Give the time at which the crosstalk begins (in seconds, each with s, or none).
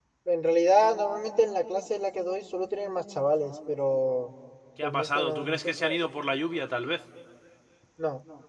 4.8 s